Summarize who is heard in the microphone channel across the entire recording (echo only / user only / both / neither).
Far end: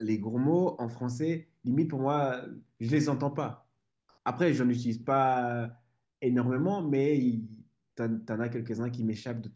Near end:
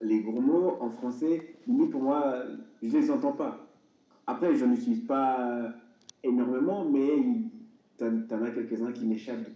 echo only